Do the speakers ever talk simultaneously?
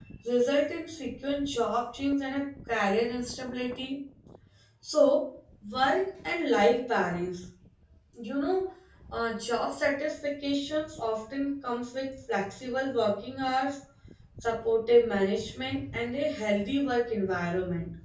No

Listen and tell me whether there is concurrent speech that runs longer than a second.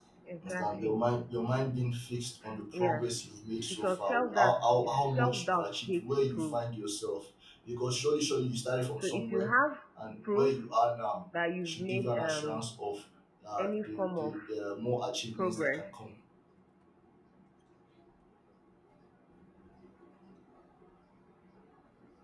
Yes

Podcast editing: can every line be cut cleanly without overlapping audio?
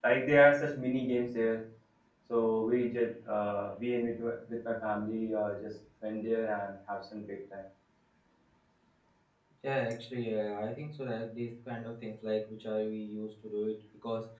Yes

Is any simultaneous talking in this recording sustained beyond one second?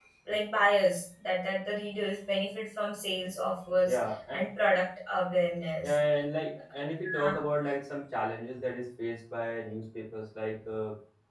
No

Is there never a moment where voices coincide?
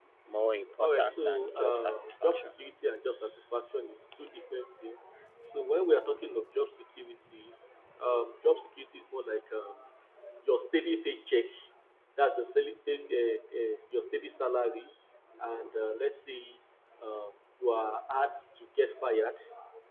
No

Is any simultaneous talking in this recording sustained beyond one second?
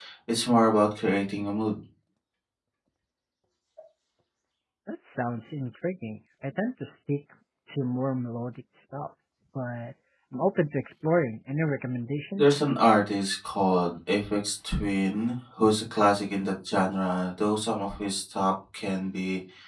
No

